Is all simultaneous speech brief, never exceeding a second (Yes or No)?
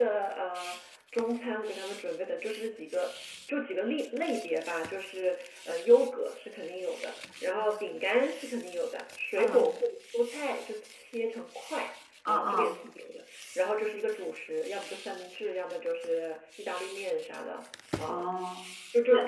Yes